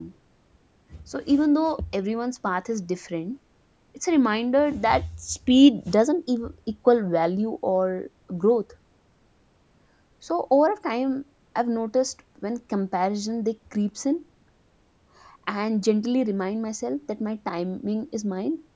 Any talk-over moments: No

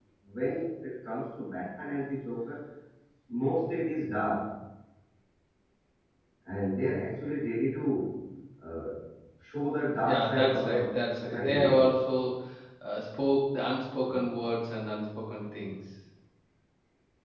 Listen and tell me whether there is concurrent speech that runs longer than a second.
Yes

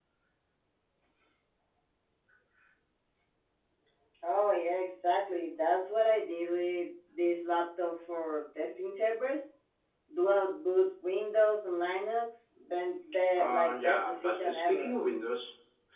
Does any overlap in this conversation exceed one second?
Yes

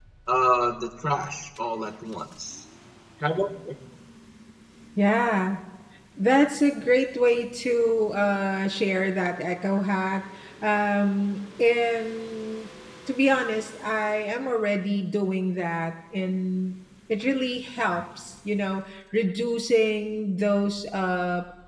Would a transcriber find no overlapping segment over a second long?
Yes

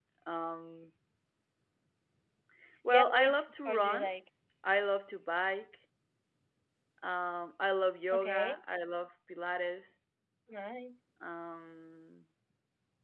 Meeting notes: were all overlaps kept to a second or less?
No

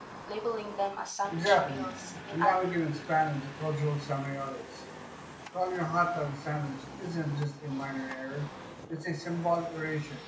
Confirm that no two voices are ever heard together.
No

